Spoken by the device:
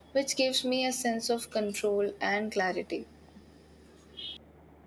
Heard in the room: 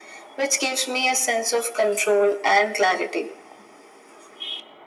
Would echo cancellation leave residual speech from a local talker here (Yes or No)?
No